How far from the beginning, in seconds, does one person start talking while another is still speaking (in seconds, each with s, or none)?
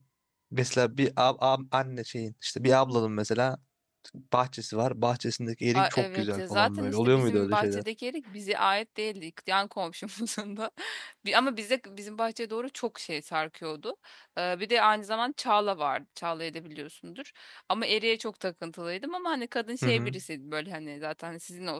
5.7 s